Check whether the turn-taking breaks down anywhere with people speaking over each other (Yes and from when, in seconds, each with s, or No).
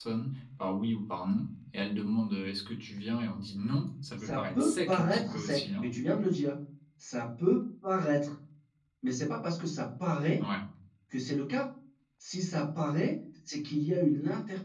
Yes, from 4.2 s